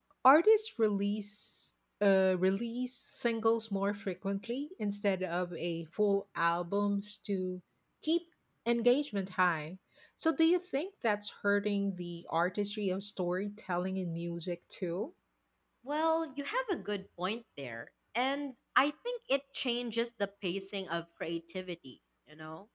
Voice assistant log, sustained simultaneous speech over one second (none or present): none